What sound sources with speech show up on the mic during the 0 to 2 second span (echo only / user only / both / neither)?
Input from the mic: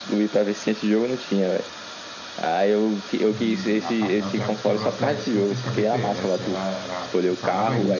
echo only